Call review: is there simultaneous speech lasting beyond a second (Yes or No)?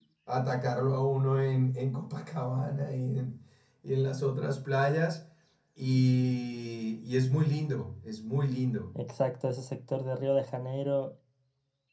No